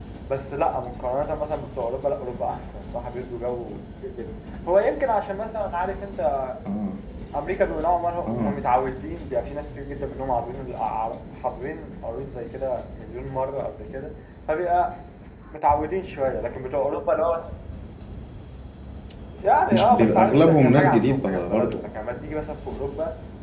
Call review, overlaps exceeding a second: present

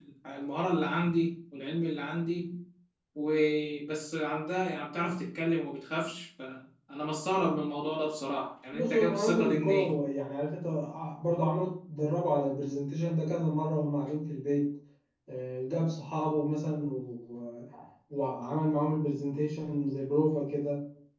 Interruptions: present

